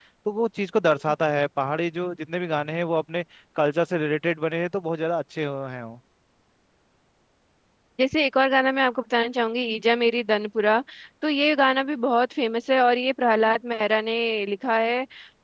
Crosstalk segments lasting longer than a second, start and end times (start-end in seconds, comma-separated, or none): none